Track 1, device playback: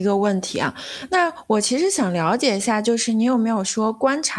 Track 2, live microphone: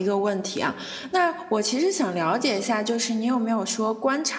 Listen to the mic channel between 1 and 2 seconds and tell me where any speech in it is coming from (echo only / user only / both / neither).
echo only